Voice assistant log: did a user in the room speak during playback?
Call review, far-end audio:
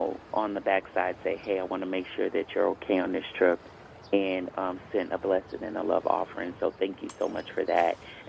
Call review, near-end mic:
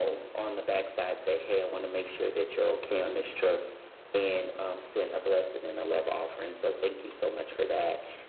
No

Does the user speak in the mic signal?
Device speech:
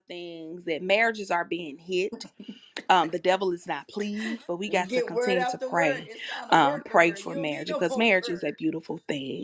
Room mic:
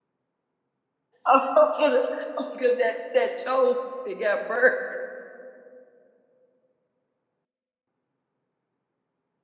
Yes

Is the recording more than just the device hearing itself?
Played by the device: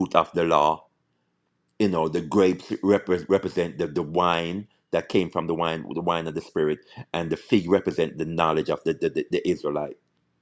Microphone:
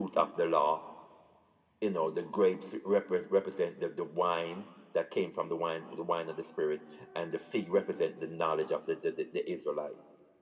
No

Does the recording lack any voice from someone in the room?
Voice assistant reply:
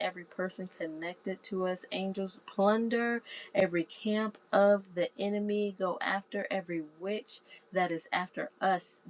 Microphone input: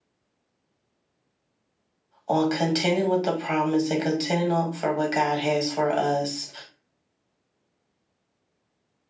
No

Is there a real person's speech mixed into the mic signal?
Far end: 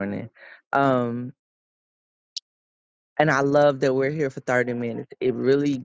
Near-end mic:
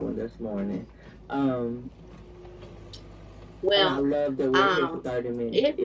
Yes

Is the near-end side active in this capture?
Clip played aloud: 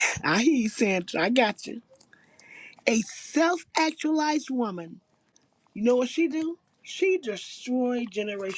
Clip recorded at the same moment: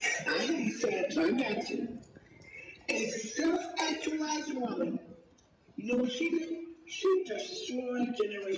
No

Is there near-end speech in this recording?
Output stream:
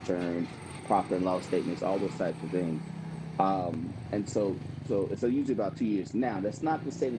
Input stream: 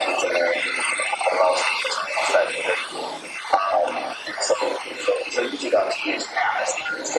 No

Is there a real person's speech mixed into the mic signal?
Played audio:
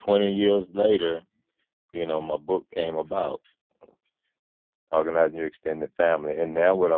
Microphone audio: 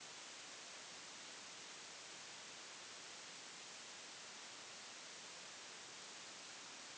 No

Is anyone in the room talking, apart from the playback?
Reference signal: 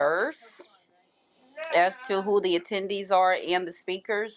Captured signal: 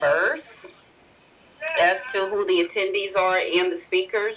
No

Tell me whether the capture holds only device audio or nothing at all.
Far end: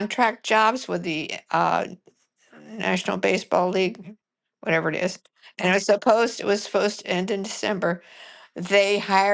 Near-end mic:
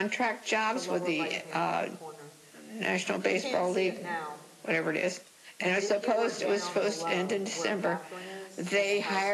No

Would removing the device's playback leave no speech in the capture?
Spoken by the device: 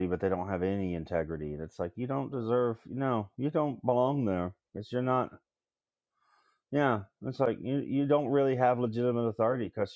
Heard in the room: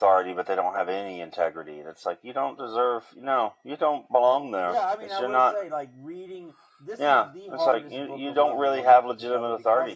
No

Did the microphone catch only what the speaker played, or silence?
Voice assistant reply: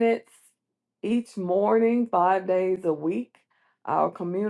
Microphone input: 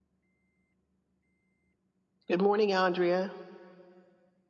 No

